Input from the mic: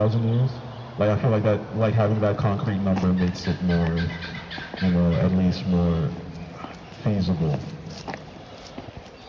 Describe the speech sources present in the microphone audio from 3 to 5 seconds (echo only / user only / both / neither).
echo only